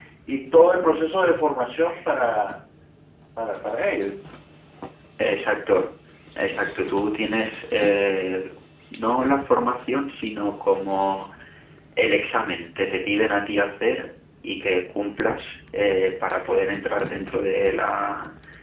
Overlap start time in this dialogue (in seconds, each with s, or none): none